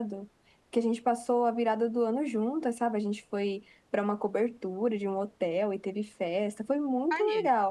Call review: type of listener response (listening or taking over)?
listening